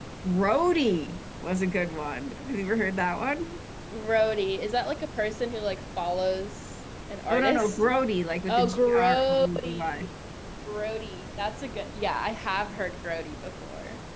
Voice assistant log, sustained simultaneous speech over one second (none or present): present